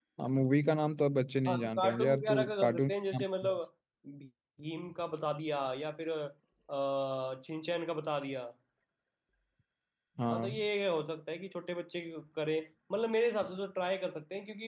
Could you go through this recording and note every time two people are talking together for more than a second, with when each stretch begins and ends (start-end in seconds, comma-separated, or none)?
1.5-3.6